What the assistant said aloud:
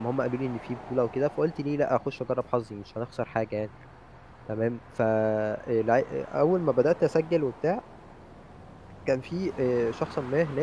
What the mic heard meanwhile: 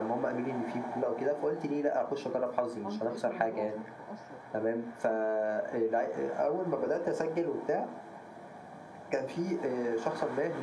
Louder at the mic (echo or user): echo